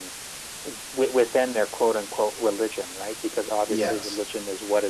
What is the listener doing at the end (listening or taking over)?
listening